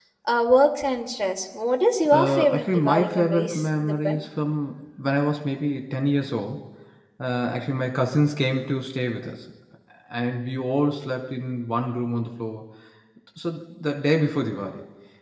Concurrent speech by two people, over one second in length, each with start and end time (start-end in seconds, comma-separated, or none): 2.1-4.2